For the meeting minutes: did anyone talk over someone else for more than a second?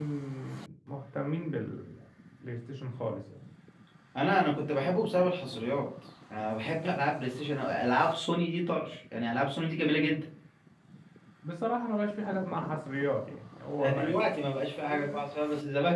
No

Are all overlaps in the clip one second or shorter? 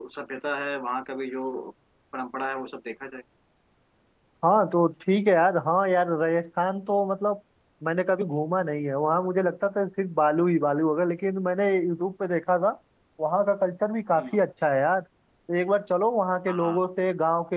Yes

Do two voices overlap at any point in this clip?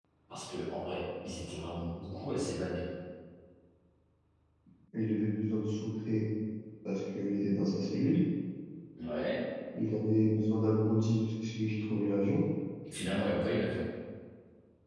No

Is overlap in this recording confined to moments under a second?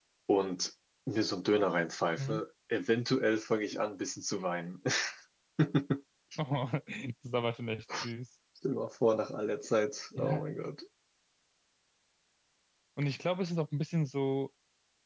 Yes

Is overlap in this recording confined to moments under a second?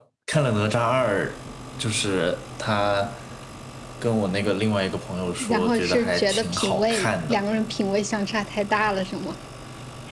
No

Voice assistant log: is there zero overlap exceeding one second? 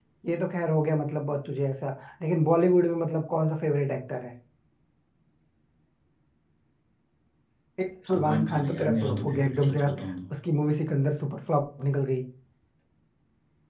No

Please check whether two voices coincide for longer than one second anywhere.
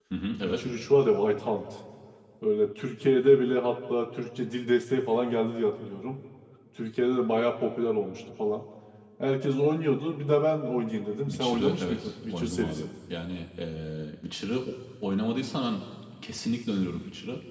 Yes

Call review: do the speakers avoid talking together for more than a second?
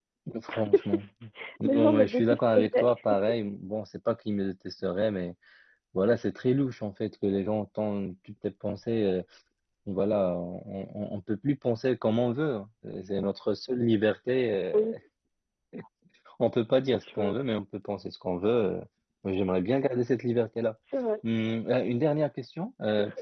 No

